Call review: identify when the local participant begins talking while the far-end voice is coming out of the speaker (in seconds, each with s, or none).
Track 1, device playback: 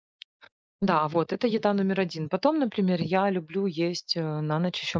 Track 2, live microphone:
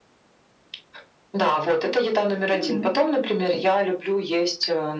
2.5 s